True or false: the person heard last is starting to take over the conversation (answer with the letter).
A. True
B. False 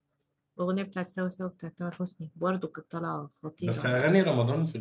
A